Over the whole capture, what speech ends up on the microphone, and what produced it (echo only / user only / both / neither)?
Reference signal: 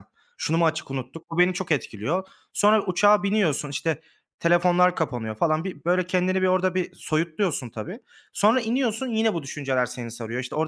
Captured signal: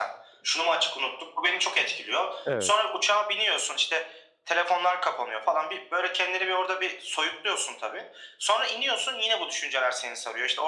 both